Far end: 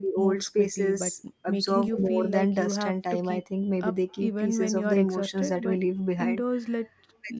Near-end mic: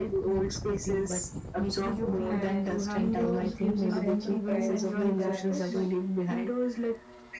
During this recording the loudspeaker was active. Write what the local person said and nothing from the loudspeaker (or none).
and indoors gives a sense of privacy that's